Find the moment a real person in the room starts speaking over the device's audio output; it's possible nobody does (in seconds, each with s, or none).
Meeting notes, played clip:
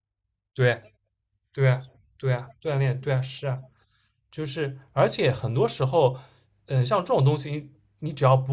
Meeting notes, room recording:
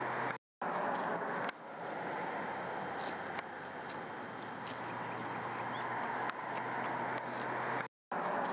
none